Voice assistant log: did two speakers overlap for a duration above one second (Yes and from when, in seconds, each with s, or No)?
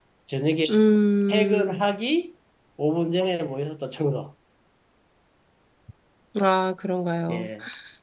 No